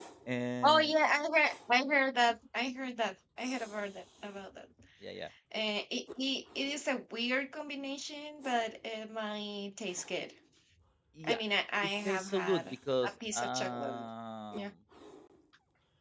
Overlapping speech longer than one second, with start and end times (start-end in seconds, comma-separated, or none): 12.0-14.1